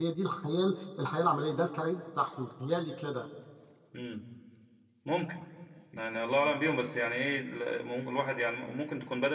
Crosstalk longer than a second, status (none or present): none